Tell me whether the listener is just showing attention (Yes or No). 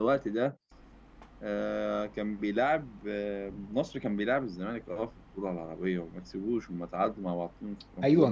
No